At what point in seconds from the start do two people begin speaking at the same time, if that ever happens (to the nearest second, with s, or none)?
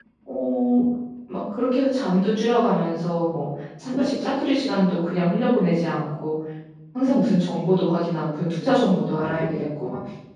none